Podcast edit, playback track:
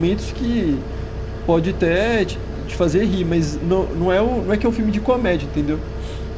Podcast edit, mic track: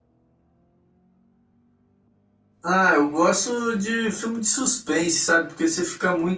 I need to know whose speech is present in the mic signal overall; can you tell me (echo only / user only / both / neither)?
user only